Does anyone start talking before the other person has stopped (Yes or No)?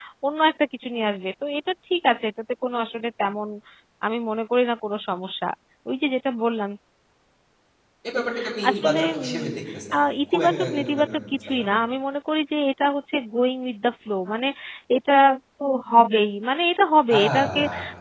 Yes